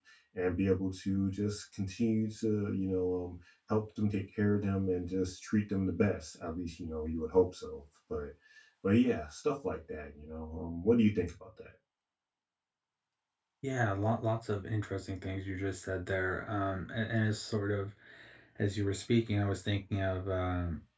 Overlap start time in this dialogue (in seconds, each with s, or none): none